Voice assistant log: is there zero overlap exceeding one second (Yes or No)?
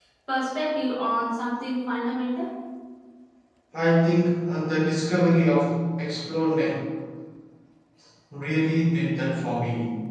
Yes